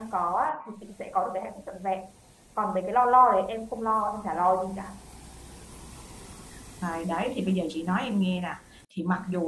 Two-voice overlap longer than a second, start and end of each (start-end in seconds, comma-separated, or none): none